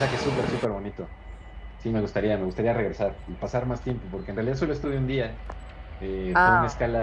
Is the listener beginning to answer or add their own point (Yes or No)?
No